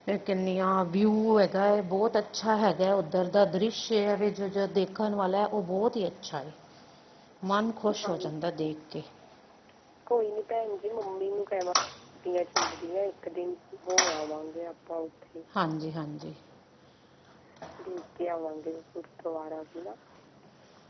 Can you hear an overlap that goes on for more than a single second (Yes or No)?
No